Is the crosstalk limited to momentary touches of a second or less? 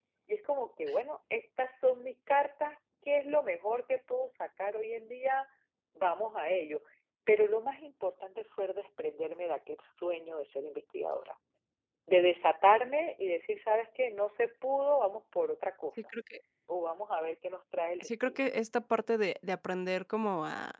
Yes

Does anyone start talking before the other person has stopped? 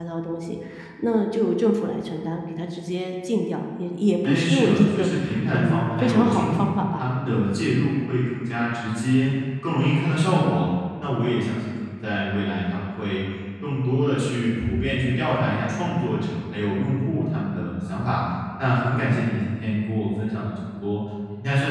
Yes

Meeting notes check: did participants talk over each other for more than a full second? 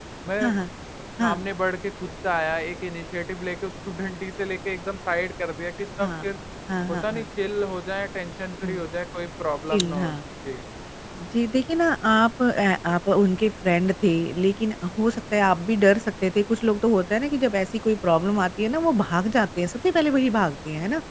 No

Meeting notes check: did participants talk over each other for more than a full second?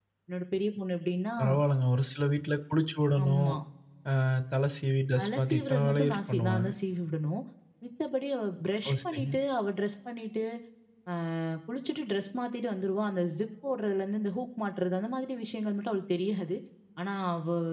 Yes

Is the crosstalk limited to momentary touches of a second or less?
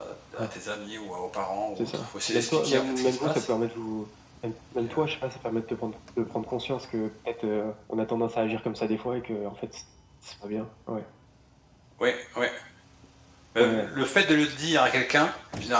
No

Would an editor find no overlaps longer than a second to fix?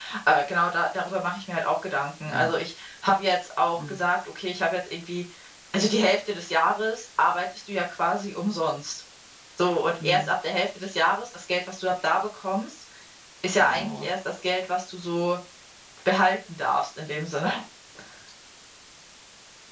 Yes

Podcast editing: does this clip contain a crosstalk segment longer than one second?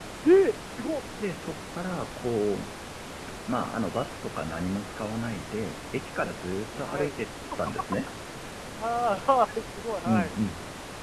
No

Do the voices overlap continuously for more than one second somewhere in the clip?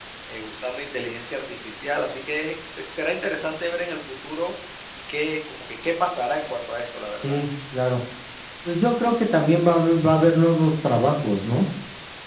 No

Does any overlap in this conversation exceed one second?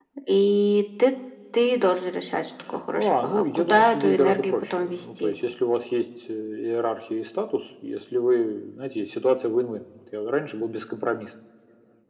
Yes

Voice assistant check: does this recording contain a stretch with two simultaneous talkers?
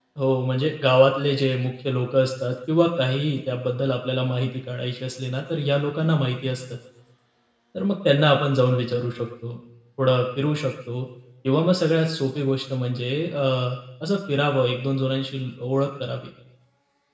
No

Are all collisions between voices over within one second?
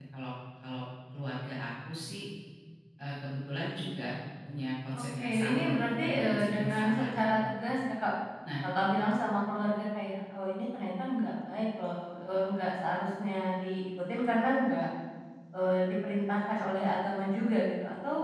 No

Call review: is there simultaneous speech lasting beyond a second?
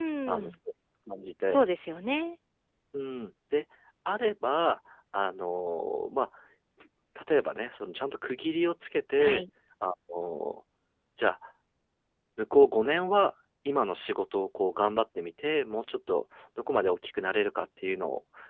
No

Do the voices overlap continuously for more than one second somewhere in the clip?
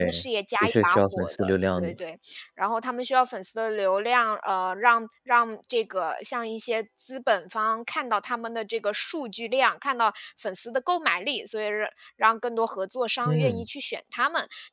Yes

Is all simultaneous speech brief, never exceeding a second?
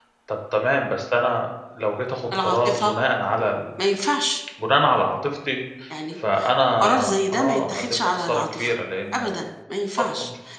No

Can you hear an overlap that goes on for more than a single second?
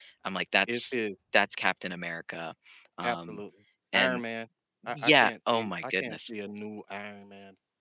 Yes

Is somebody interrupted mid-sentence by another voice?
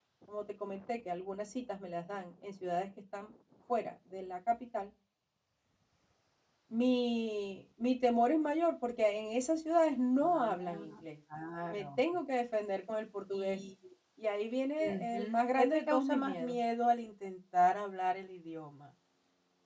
Yes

